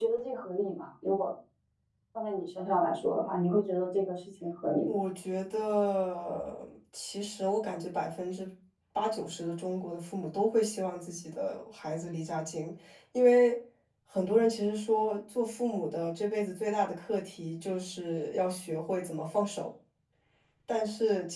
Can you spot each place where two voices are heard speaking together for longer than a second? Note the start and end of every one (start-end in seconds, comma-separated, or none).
none